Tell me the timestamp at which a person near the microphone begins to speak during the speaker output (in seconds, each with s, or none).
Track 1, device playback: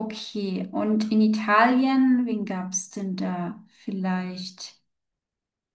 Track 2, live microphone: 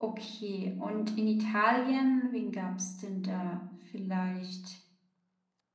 none